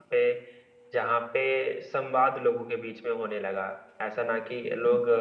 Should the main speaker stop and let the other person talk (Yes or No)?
No